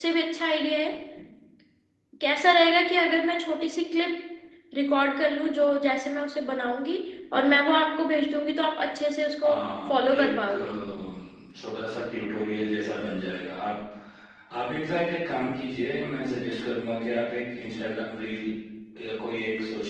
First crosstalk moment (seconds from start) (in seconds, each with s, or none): 9.4 s